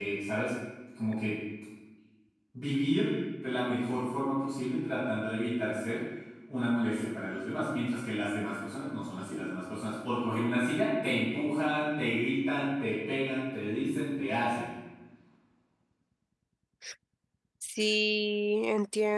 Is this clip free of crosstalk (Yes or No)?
Yes